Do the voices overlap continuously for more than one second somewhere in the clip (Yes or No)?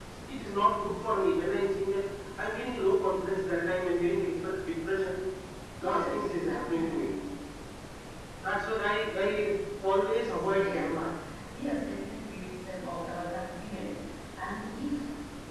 Yes